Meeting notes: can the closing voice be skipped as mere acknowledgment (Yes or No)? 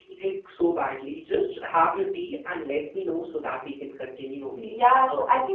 No